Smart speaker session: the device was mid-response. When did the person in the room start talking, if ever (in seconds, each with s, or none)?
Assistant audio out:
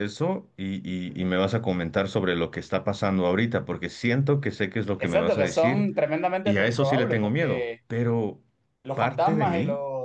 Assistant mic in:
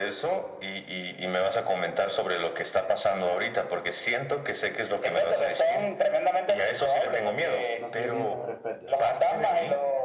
7.8 s